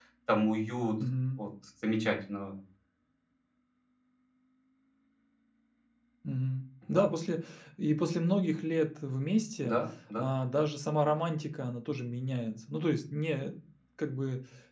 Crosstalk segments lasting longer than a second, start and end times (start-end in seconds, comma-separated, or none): none